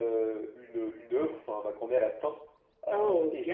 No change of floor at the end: Yes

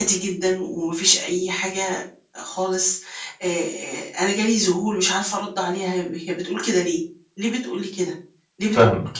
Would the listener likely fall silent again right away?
Yes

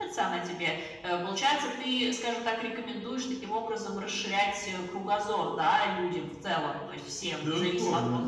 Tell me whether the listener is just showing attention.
No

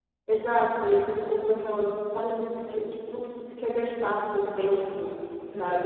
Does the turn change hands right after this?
Yes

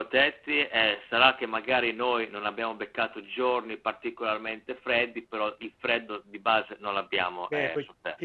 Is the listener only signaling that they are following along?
No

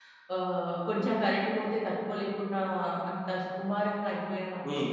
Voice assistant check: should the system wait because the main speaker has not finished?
Yes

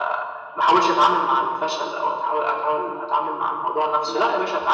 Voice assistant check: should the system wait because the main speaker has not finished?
Yes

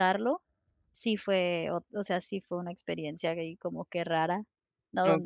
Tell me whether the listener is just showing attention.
Yes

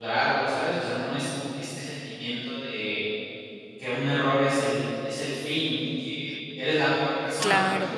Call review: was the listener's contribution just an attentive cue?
No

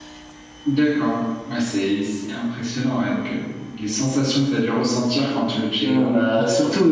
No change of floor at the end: No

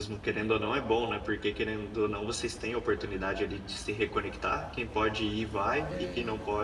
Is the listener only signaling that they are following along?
Yes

